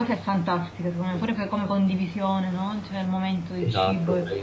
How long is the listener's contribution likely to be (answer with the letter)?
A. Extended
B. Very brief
A